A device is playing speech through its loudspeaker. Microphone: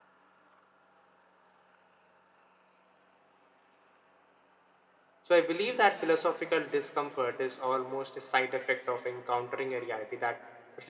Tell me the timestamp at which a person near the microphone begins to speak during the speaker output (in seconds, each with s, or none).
5.2 s